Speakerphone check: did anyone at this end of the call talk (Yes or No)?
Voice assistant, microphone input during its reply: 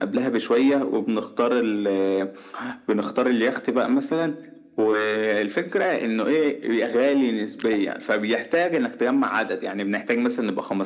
No